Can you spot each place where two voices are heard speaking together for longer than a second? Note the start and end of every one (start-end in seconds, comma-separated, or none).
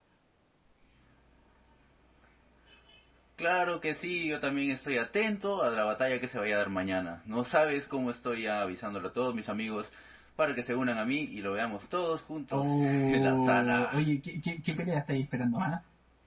12.5-13.9